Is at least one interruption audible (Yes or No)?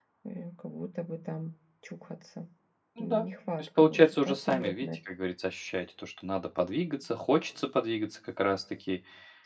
Yes